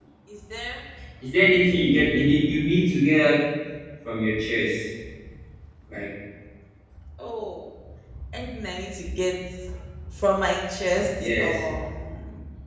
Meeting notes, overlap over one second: none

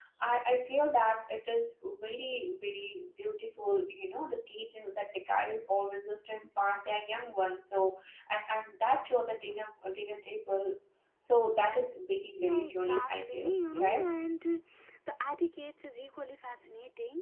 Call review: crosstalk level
present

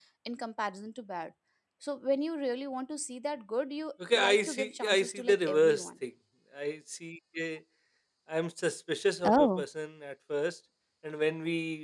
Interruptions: present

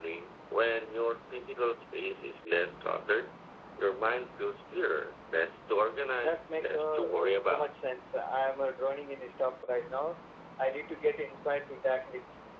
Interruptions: present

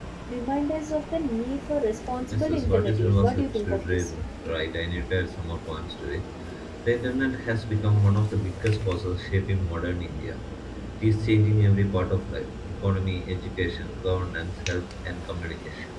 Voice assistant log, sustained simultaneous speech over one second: present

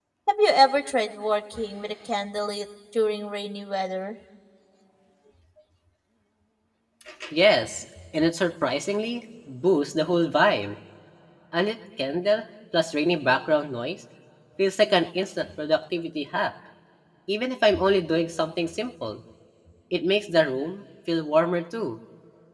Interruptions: none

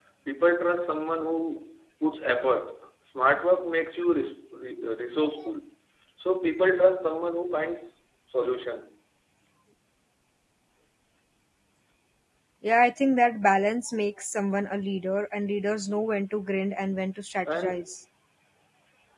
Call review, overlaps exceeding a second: none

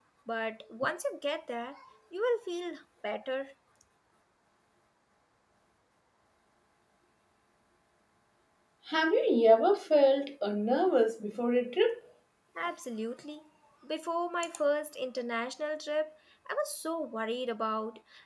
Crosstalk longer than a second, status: none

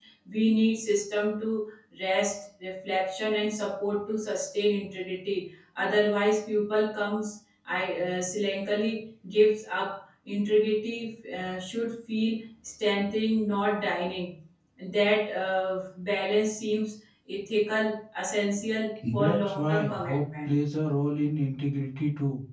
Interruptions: present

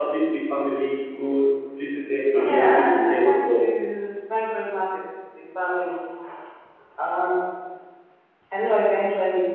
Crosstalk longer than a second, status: present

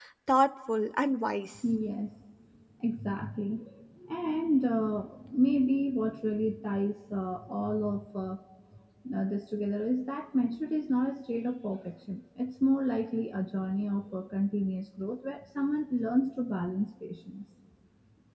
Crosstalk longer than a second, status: none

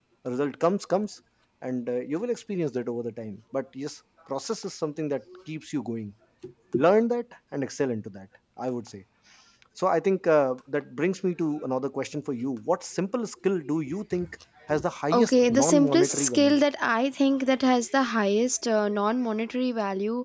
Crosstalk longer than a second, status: present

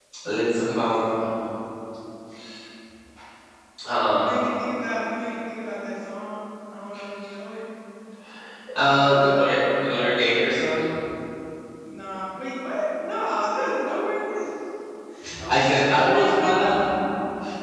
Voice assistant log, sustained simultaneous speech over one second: present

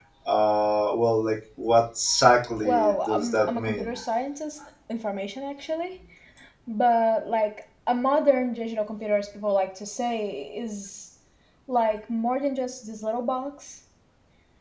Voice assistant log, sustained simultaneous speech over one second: present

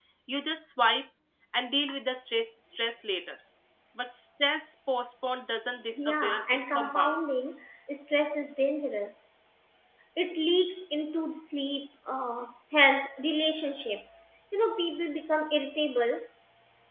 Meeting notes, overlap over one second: present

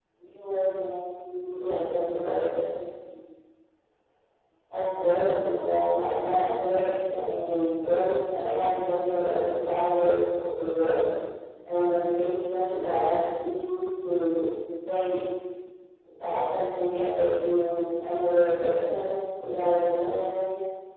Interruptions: present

